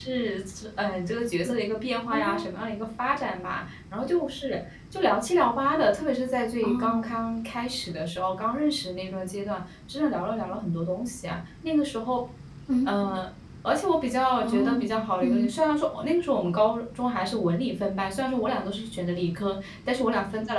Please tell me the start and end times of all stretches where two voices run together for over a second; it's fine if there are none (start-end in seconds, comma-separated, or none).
none